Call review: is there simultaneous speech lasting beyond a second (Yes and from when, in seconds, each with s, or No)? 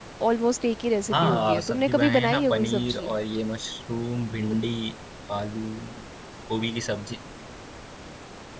Yes, from 1.1 s